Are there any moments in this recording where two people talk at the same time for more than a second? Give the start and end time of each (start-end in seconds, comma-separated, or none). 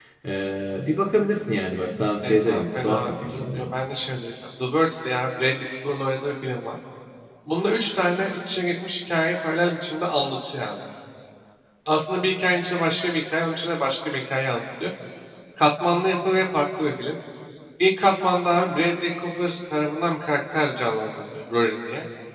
2.2-3.7